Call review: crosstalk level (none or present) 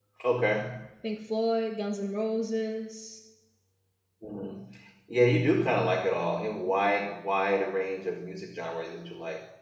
none